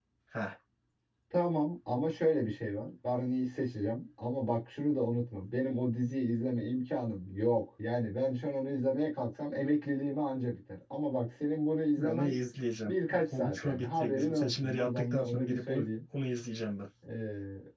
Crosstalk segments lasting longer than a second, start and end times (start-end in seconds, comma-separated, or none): 12.8-15.8